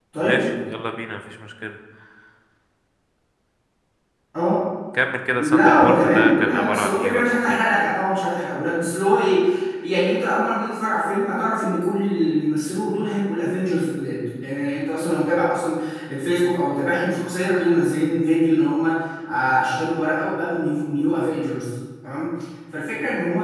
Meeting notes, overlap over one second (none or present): present